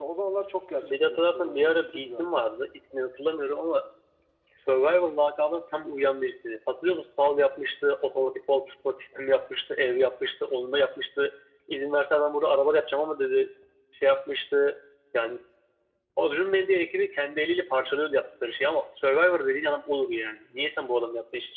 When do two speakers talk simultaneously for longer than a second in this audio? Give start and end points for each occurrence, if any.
0.8-2.3

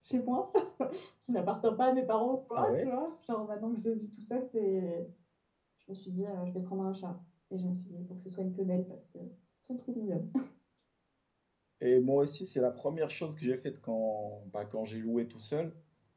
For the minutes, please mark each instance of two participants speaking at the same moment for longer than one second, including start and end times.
none

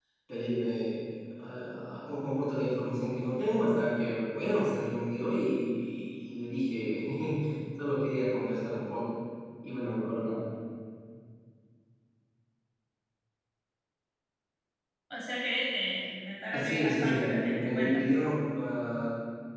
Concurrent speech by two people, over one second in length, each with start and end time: 16.5-18.0

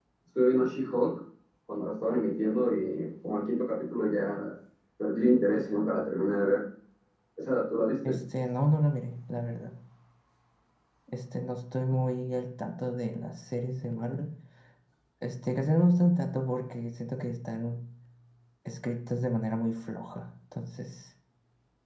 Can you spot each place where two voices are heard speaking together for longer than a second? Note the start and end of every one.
none

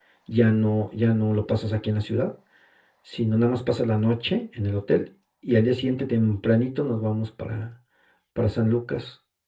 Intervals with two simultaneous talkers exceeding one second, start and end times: none

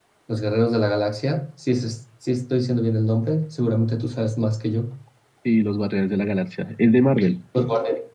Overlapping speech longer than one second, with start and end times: none

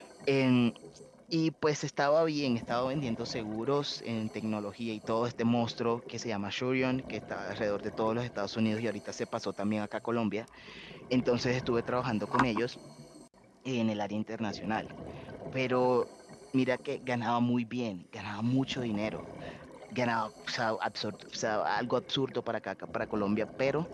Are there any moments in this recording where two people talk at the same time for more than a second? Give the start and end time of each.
none

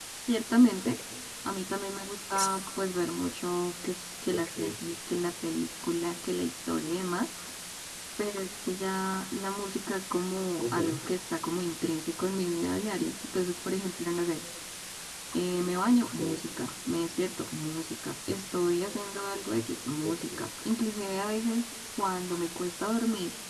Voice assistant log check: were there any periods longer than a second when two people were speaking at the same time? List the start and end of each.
none

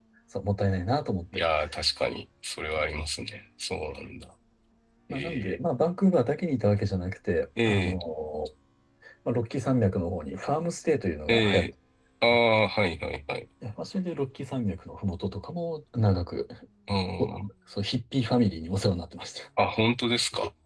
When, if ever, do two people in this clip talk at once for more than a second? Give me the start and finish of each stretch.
none

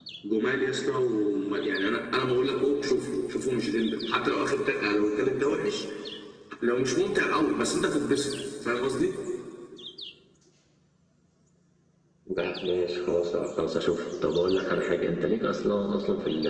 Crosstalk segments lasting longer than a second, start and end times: none

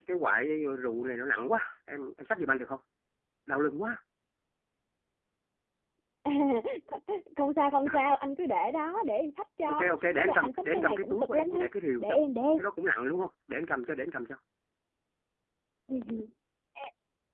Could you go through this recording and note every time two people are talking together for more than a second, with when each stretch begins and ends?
9.7-11.6

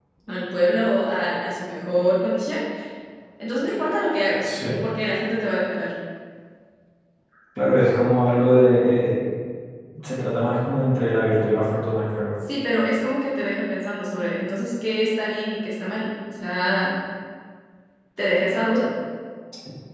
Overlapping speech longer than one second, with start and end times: none

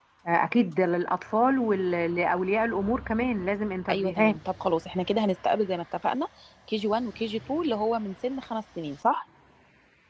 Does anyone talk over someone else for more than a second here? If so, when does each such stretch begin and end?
none

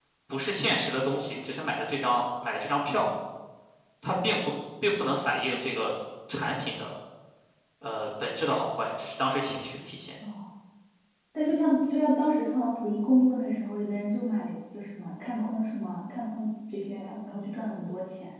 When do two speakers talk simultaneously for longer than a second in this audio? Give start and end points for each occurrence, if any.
none

